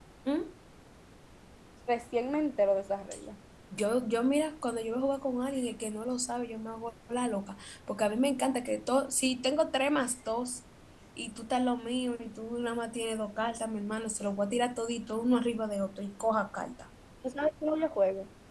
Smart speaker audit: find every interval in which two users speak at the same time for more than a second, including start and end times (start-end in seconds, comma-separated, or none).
none